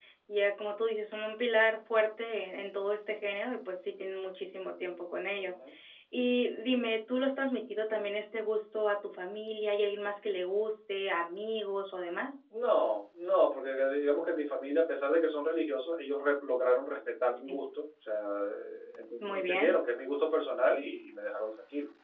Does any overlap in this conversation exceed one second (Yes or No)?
No